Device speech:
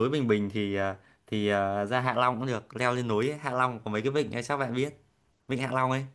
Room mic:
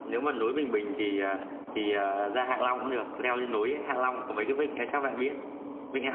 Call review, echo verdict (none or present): present